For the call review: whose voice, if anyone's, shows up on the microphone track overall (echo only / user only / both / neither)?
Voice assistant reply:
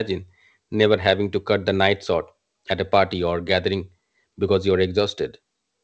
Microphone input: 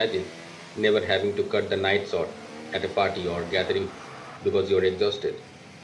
echo only